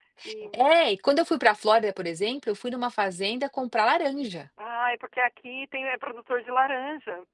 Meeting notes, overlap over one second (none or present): none